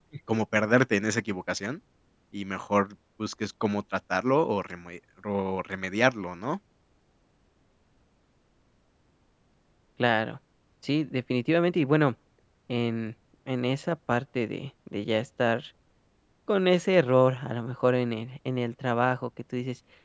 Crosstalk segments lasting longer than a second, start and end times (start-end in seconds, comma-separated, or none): none